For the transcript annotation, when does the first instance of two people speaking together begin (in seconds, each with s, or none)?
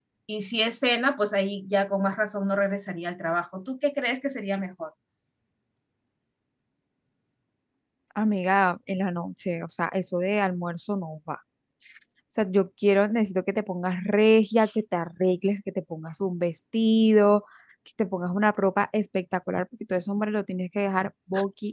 none